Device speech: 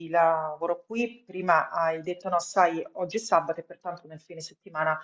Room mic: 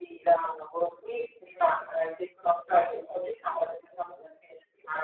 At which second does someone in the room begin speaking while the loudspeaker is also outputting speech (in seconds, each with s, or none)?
none